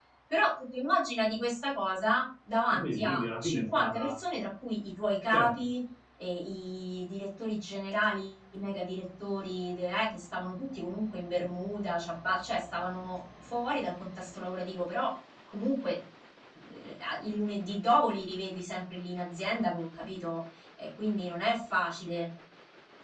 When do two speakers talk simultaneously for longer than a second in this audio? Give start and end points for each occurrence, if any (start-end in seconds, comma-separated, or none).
2.7-4.2